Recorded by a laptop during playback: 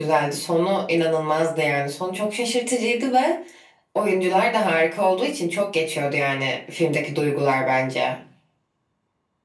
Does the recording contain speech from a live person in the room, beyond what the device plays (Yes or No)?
No